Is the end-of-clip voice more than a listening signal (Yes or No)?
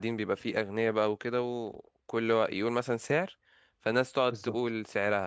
No